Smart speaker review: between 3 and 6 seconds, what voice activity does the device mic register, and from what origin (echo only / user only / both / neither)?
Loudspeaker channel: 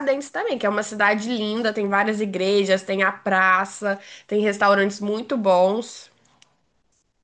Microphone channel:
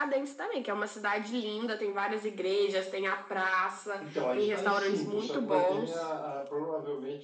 both